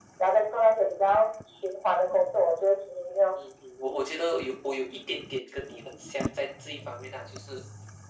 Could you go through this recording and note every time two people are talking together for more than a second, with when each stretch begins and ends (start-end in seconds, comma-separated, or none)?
none